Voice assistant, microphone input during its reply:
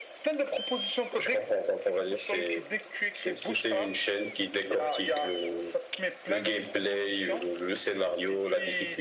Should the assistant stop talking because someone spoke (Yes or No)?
No